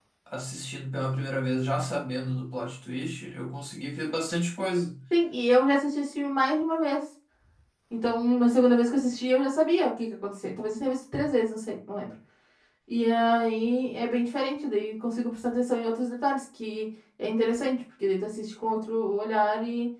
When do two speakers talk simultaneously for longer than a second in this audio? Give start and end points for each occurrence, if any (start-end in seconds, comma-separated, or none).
none